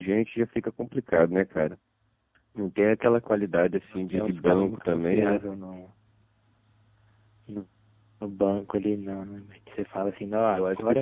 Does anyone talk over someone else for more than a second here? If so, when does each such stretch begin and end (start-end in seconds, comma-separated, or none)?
4.1-5.4